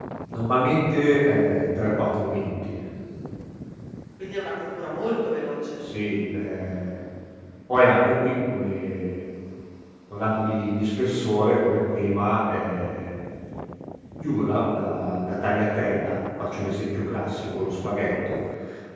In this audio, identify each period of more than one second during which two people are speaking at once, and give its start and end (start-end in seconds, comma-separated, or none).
none